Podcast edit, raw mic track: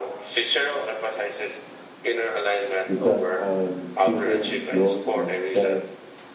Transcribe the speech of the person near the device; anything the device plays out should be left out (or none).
because I am choosing growth instead